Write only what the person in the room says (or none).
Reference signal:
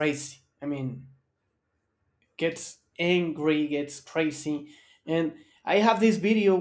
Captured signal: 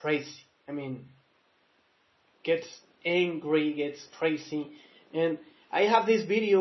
none